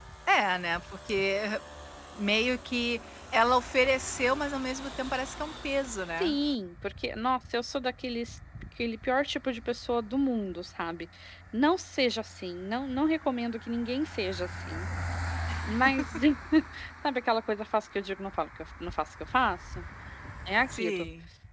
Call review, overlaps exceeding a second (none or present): none